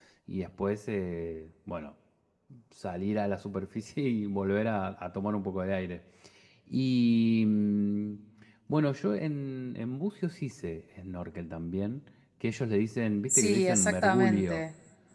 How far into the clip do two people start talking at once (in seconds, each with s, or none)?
13.3 s